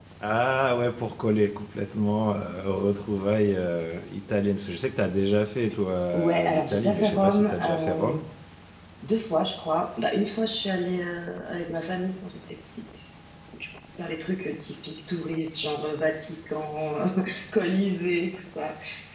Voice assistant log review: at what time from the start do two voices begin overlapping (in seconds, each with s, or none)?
6.1 s